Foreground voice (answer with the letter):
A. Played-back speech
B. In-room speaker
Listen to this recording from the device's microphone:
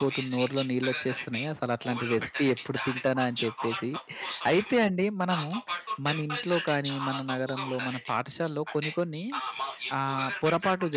B